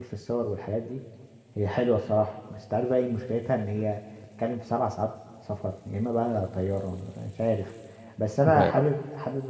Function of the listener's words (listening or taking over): listening